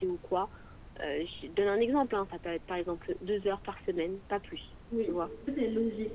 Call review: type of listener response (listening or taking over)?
taking over